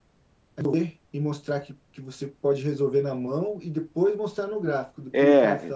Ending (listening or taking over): listening